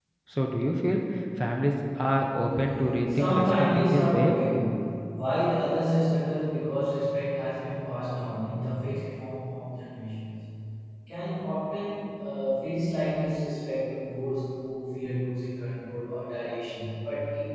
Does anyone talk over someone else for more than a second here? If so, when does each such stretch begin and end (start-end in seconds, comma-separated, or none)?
3.1-4.3